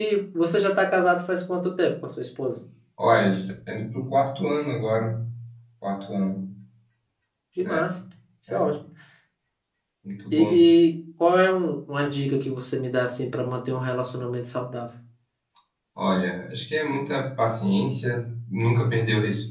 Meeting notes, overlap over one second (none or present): none